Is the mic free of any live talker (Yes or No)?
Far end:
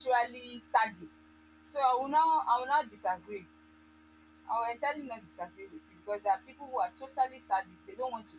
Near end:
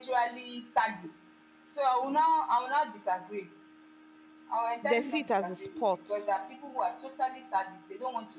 No